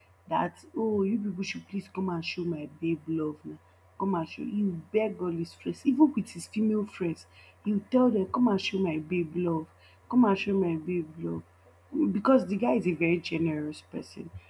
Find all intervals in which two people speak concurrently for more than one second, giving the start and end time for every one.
none

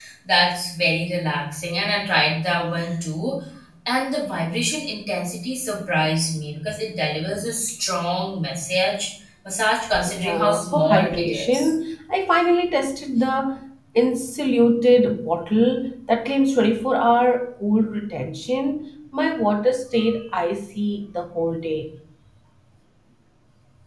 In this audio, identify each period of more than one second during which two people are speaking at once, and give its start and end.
10.1-11.7

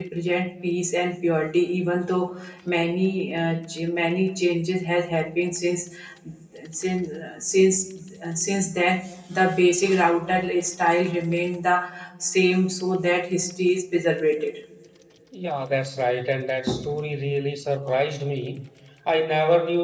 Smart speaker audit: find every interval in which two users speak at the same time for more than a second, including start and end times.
none

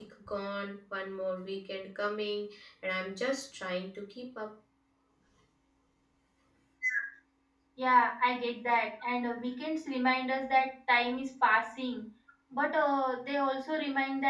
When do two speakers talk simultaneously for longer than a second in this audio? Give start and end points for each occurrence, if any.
none

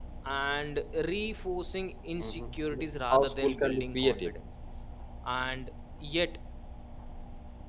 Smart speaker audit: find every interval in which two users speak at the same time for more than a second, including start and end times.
3.1-4.3

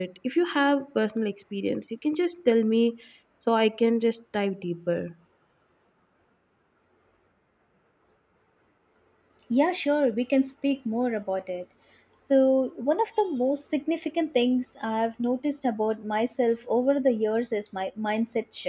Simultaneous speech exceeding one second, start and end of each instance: none

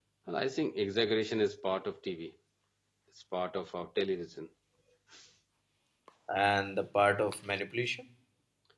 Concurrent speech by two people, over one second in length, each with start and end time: none

